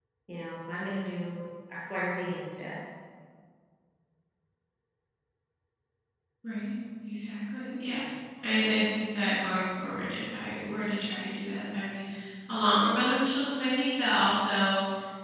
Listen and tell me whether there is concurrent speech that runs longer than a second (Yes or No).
No